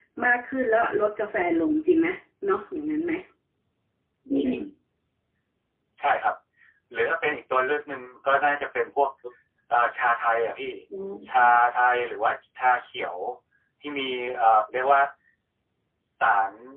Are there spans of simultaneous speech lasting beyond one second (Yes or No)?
No